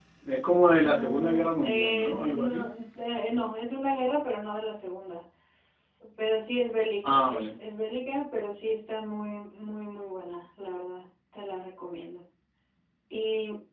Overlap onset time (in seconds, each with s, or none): 0.8 s